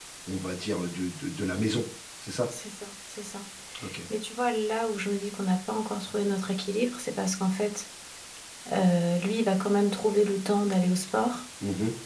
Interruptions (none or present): none